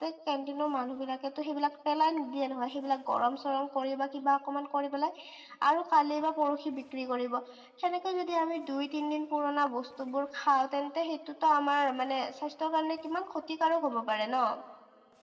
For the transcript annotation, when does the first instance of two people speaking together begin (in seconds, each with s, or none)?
none